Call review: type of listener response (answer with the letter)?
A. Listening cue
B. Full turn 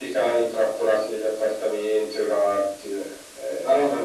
B